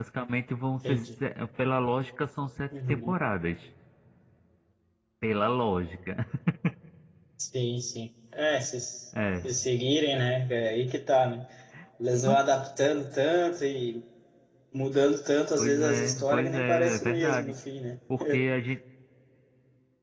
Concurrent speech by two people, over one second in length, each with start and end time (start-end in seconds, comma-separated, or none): 15.6-17.5